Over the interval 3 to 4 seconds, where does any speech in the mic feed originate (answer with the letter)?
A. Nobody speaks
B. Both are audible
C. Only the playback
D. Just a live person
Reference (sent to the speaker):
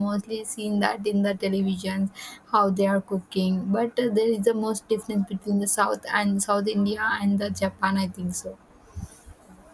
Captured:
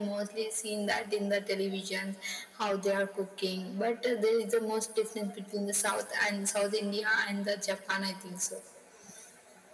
C